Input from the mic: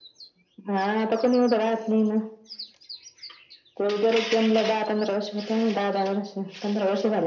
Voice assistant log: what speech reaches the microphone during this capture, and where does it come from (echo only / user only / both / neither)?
echo only